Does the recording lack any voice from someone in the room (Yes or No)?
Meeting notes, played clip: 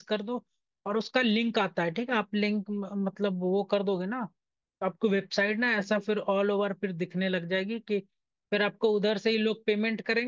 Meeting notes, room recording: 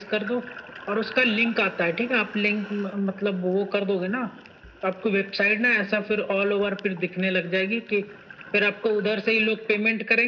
Yes